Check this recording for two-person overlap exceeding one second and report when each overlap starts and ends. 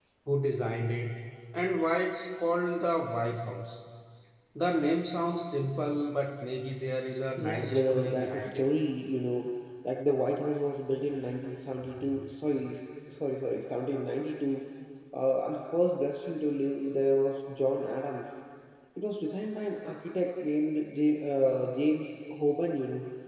7.4-8.7

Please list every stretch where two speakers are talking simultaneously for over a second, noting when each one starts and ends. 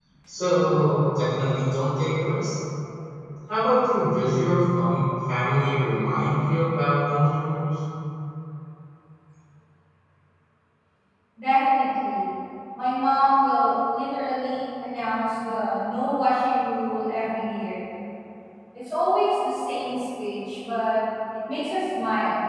none

